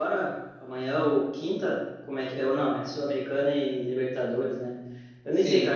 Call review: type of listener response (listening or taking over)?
listening